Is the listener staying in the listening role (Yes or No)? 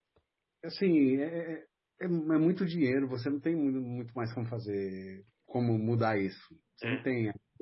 Yes